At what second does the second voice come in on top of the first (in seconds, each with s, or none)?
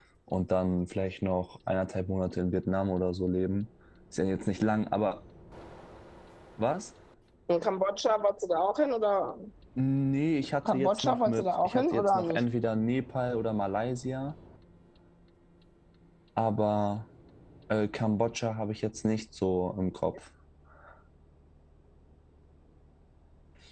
10.7 s